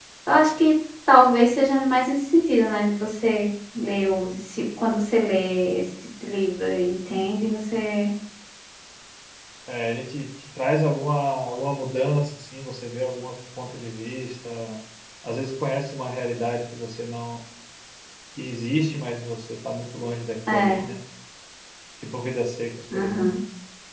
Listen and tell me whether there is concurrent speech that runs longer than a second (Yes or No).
No